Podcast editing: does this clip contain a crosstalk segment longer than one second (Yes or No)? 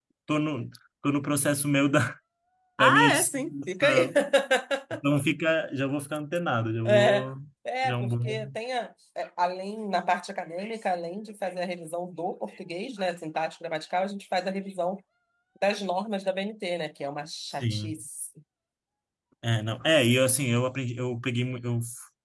Yes